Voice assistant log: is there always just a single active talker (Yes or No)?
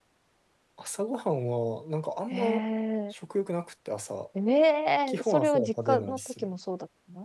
No